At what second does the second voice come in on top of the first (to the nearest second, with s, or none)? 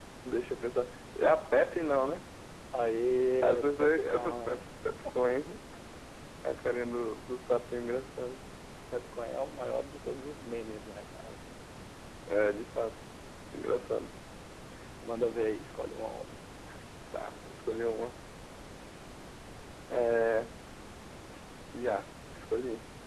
3 s